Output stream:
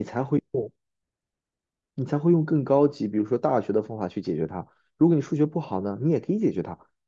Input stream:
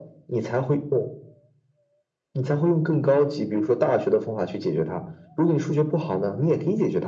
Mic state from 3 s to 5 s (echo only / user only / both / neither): echo only